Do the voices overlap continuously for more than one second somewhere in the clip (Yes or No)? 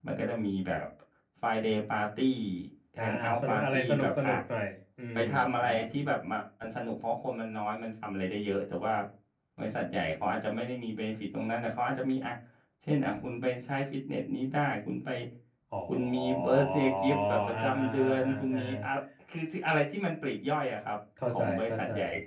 Yes